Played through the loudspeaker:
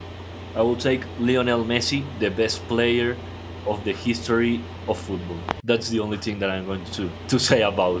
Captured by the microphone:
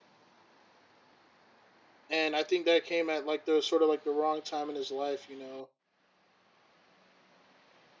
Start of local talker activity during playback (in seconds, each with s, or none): 2.1 s